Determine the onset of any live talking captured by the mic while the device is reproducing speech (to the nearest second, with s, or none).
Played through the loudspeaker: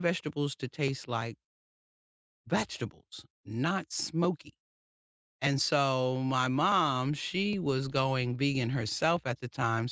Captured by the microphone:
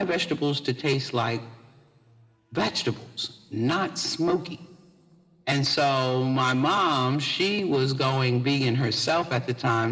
none